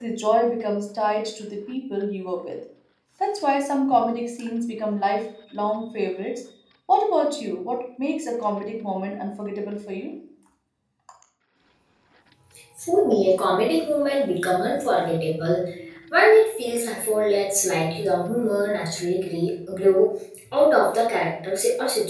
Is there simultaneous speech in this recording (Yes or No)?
No